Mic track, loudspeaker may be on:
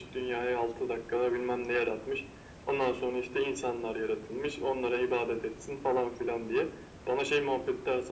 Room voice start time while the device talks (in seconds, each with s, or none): none